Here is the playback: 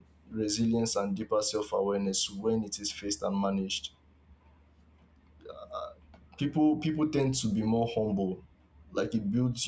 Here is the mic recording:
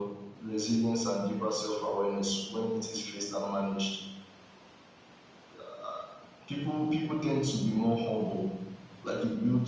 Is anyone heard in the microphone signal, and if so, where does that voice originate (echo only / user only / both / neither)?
echo only